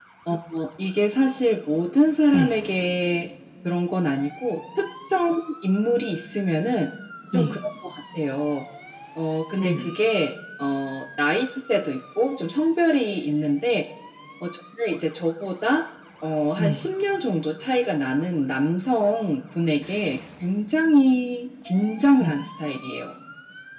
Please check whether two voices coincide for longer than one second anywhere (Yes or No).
No